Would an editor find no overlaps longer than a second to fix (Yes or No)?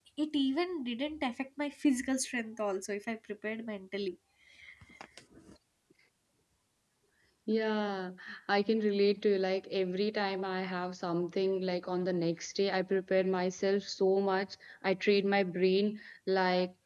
Yes